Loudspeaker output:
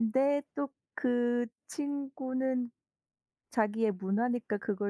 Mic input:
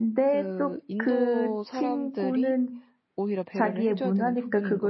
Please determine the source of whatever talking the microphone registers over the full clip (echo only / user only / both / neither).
both